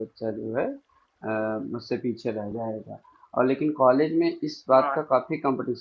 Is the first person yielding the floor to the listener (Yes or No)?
No